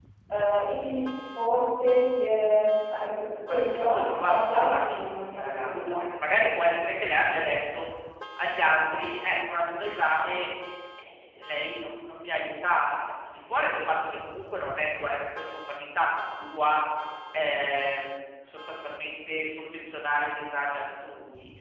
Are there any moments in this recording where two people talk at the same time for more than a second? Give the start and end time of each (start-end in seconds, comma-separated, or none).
3.5-6.0